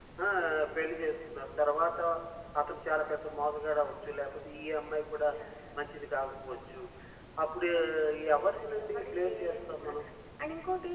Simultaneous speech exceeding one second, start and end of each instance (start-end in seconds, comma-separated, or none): 8.4-10.0